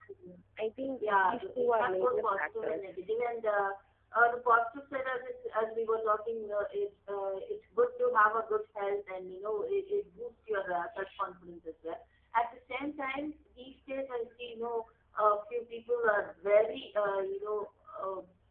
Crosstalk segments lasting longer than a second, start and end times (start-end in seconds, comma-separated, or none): 1.0-2.9